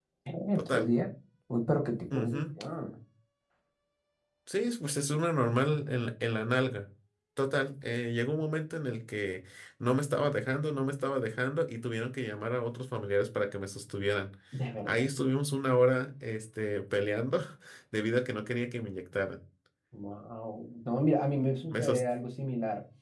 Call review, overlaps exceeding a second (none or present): none